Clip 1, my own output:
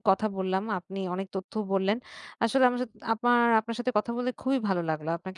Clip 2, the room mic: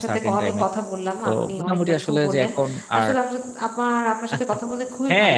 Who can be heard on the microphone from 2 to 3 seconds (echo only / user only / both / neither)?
both